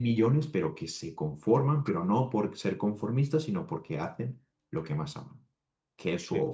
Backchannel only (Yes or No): No